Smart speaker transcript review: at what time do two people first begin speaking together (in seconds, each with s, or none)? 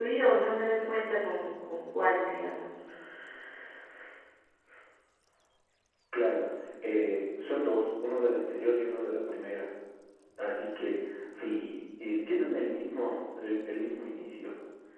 none